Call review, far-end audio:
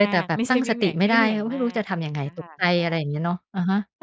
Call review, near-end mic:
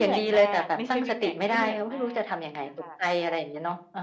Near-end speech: none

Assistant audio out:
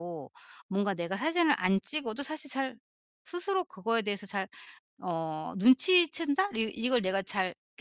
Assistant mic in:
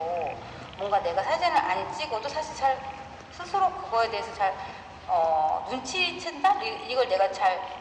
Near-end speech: none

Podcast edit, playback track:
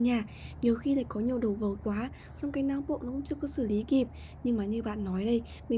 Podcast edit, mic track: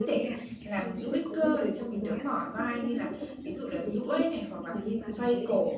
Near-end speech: present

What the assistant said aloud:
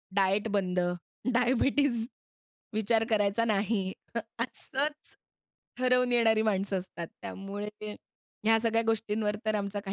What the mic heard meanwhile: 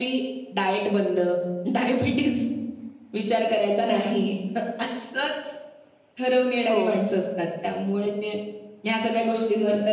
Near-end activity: present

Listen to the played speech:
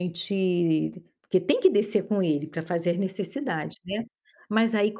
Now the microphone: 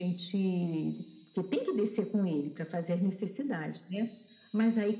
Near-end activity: none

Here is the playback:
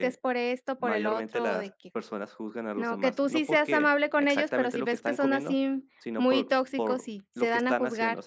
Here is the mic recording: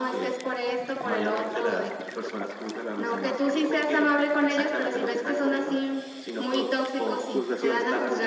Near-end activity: present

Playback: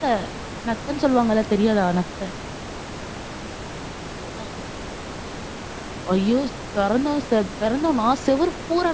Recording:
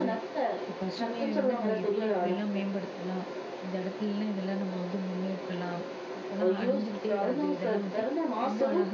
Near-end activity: present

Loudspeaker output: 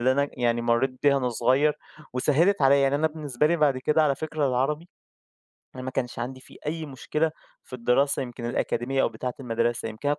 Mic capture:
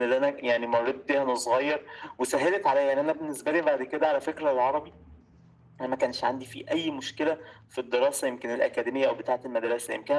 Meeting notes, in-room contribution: none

